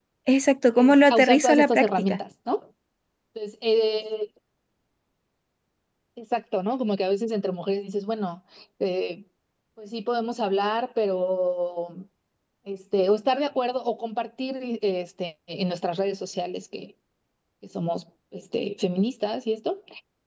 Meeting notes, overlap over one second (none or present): present